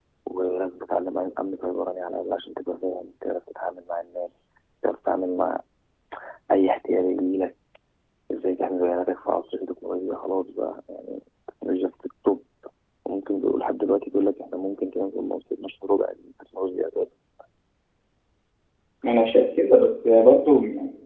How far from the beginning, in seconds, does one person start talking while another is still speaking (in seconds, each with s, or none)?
none